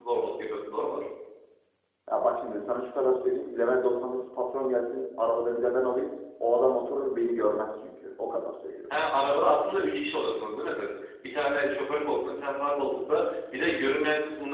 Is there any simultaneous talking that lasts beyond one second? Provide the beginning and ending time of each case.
none

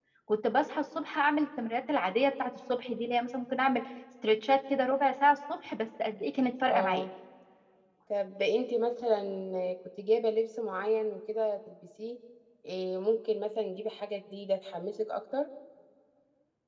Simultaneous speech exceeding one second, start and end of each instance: none

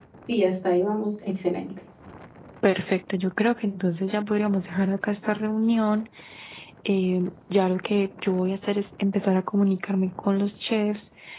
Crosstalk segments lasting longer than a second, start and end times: none

